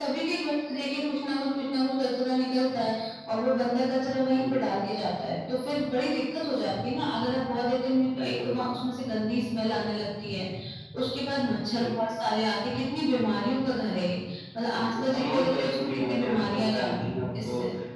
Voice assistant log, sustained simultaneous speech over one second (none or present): present